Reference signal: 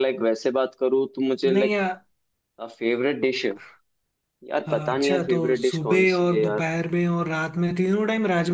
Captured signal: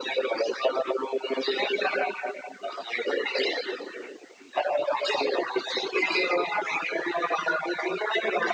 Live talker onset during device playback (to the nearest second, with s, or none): none